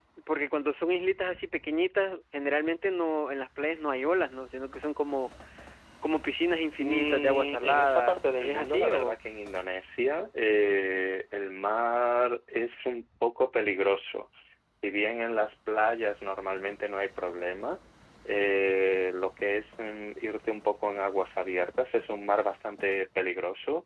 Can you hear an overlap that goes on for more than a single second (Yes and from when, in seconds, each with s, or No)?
Yes, from 6.8 s